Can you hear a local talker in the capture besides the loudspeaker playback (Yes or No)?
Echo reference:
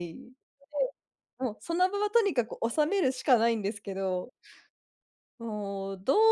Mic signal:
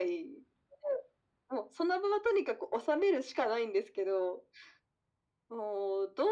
No